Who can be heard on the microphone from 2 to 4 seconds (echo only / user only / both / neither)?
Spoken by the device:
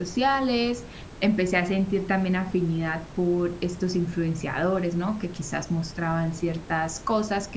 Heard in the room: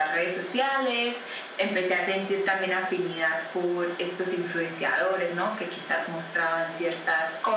echo only